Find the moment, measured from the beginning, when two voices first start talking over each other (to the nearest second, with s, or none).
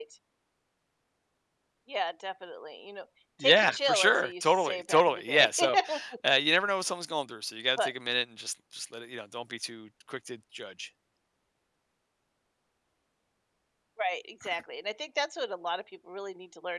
3 s